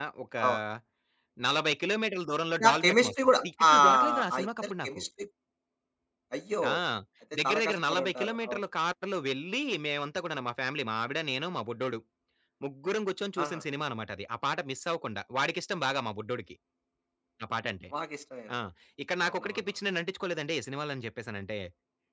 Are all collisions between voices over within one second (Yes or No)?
No